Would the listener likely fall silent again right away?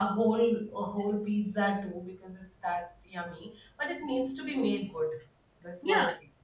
No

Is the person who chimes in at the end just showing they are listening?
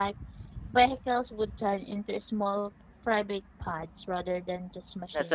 No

